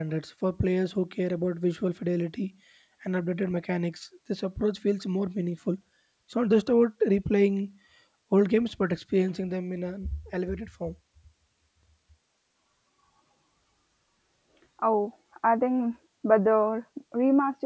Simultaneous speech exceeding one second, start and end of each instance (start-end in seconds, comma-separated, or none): none